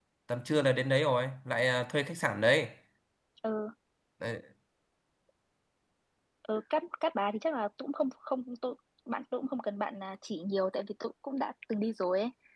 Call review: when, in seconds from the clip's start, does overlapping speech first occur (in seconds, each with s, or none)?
none